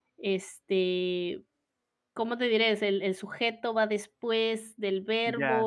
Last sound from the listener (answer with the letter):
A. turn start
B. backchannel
A